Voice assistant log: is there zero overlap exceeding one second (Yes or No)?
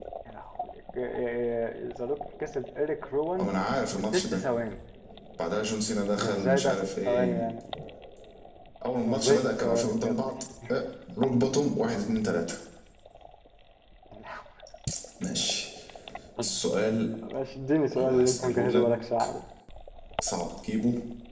No